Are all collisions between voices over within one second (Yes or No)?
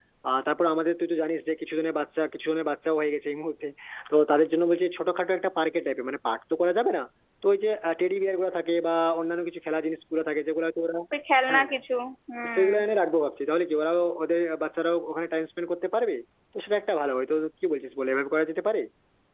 Yes